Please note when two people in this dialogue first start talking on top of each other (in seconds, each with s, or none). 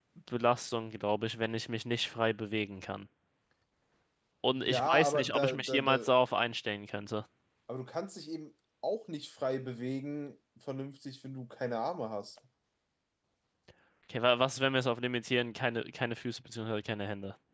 4.5 s